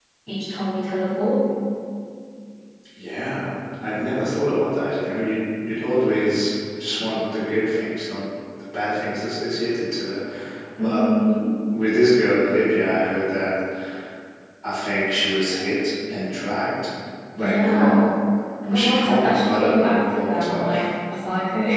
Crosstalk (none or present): present